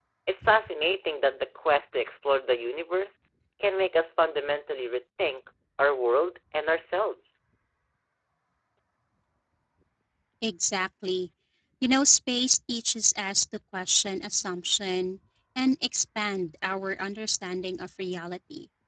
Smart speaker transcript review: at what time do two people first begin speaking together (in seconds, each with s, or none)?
none